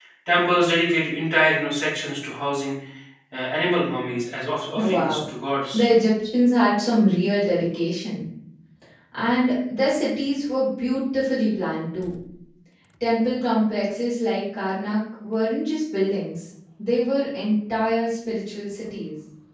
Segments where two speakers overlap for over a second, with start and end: none

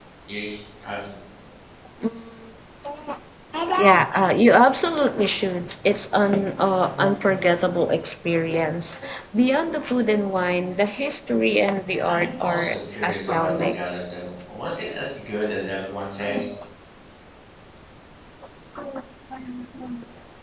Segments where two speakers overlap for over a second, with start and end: 11.8-13.8

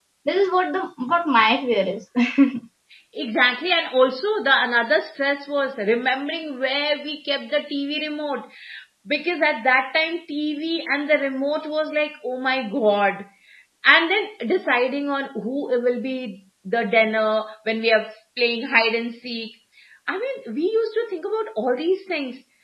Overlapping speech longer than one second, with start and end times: none

